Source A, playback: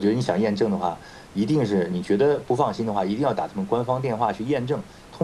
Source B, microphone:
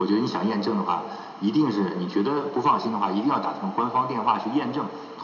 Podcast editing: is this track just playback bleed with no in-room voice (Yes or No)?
Yes